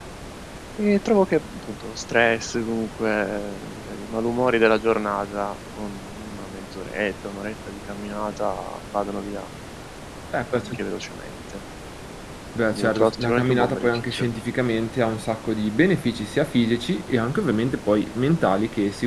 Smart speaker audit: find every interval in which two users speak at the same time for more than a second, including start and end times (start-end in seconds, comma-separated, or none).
12.7-14.3